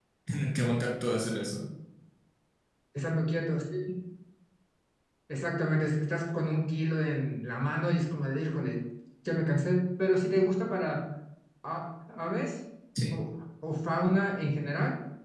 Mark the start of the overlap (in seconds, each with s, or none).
none